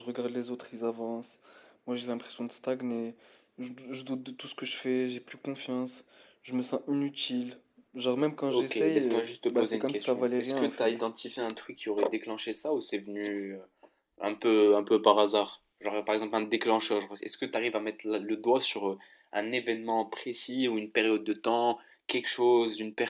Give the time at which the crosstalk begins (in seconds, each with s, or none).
8.5 s